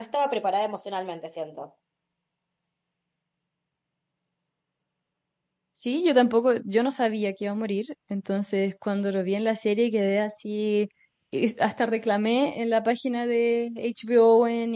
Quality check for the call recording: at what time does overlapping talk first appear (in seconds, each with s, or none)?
none